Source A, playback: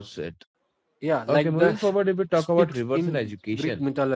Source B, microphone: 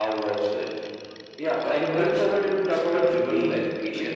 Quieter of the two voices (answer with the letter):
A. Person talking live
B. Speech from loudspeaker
A